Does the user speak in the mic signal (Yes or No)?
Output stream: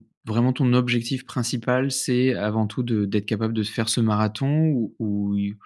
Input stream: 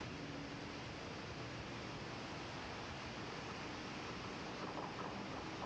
No